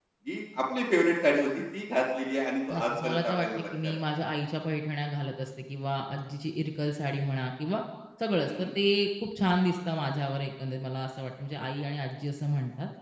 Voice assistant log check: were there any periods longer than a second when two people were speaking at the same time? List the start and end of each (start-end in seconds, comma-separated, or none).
2.7-3.9